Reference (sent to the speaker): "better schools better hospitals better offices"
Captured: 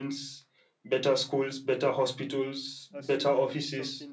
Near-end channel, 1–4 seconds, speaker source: both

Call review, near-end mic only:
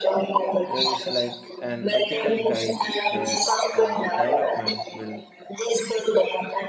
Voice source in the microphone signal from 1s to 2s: both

